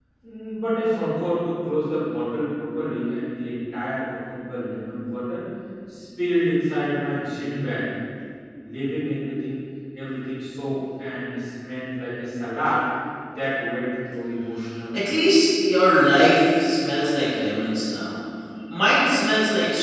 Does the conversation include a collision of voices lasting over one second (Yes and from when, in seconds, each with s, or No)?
No